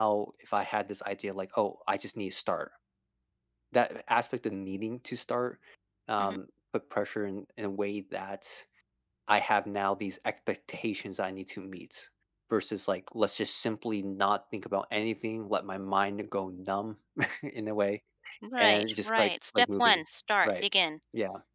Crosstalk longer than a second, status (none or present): present